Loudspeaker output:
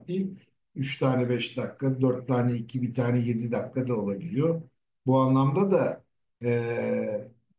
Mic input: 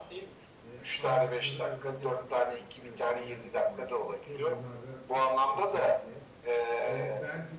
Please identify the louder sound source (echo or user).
echo